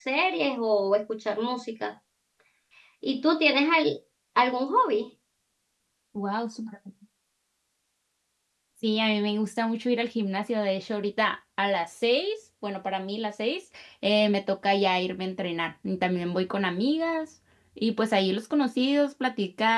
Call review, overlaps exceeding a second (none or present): none